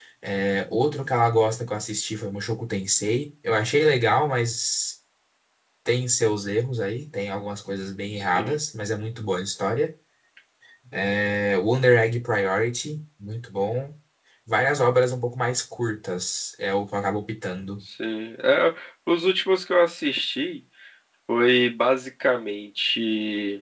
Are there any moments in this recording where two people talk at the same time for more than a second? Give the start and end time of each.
none

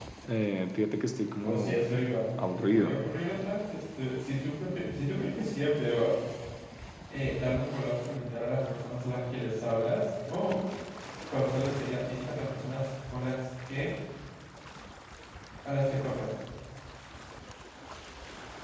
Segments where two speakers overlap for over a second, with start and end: none

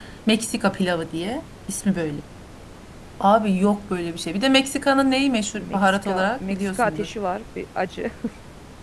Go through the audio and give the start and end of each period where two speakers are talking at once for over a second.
5.6-7.1

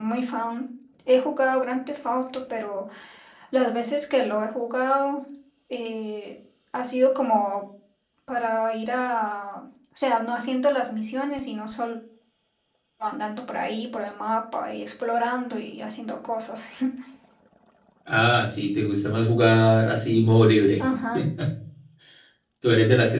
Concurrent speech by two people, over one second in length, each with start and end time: none

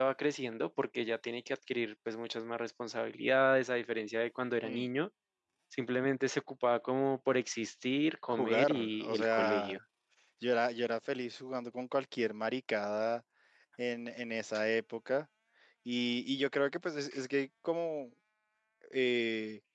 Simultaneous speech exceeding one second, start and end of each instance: 8.3-9.8

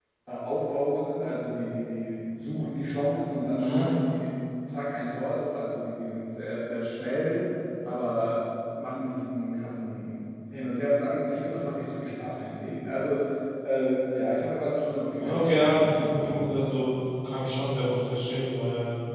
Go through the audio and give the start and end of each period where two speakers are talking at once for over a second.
15.1-16.5

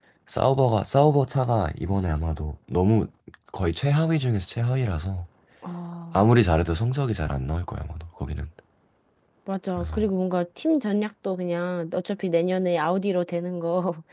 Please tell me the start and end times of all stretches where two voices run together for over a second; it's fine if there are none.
none

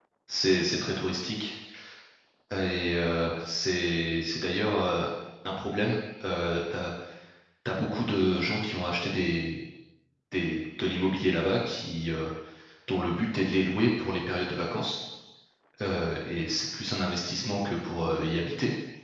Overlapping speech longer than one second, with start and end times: none

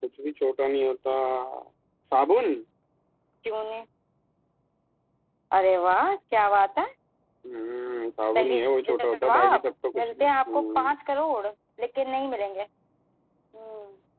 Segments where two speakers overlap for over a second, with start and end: 8.3-10.9

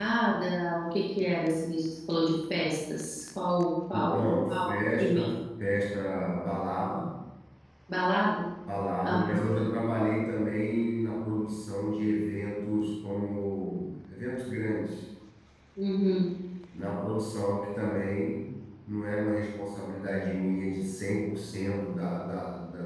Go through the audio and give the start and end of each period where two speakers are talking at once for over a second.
3.9-5.3

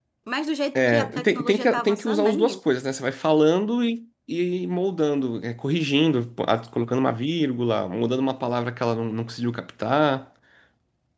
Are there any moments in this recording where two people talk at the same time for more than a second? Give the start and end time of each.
0.8-2.6

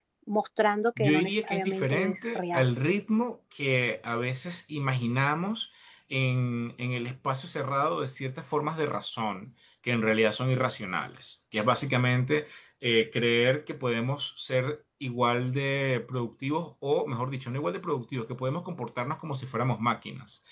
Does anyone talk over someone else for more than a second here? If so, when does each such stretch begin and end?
1.0-2.7

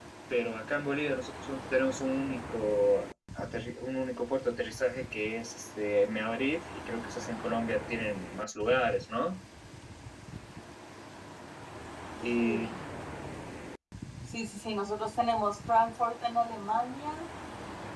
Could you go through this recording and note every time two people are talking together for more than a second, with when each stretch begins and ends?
none

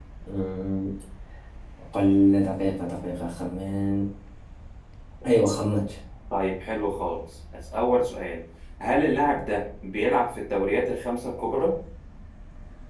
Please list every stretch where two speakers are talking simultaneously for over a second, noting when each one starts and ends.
none

